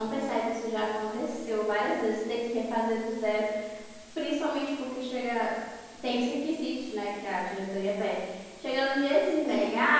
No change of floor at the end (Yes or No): Yes